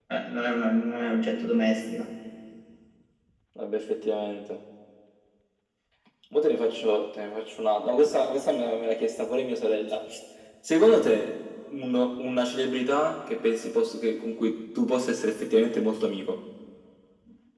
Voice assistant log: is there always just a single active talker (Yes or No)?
Yes